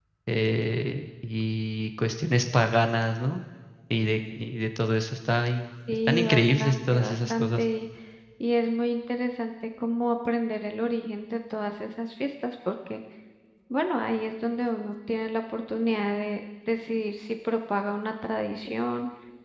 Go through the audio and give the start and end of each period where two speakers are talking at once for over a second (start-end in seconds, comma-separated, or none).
6.1-7.6